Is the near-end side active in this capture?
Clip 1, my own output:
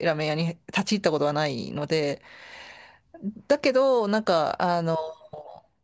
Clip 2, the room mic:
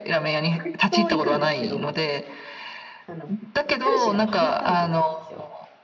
Yes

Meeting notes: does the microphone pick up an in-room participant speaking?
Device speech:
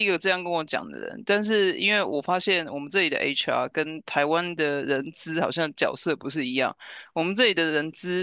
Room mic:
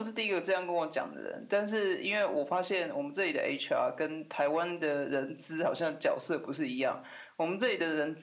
No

